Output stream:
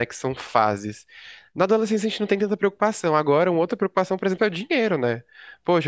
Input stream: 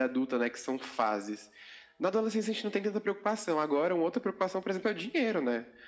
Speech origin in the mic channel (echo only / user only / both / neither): echo only